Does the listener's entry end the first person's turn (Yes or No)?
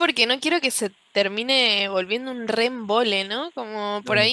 No